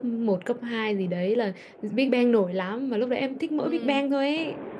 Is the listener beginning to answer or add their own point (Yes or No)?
No